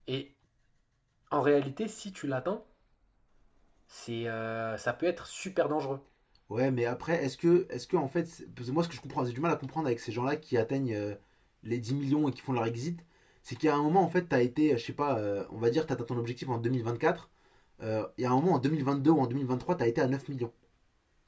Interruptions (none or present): none